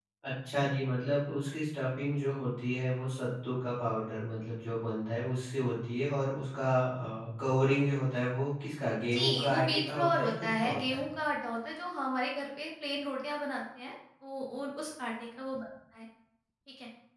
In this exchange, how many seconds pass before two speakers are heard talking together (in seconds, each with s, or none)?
9.1 s